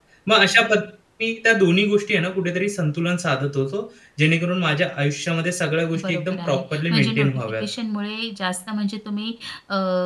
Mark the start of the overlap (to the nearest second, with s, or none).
6 s